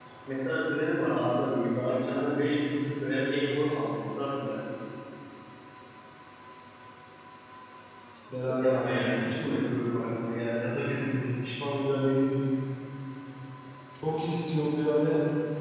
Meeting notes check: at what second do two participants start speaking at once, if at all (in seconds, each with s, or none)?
8.4 s